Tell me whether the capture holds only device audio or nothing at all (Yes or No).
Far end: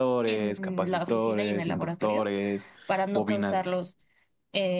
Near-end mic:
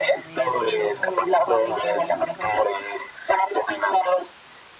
No